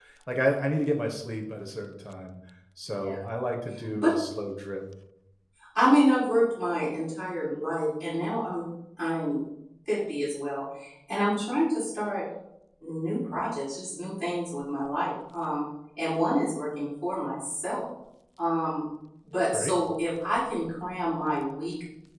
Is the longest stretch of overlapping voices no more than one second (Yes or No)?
Yes